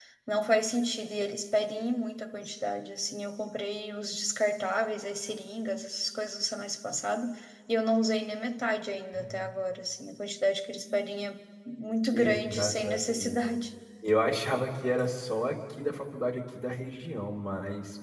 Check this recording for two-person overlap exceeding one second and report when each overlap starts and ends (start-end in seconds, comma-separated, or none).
12.1-13.3